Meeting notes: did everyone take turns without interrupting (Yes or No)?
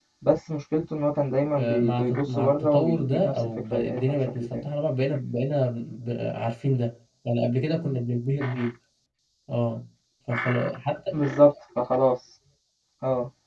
No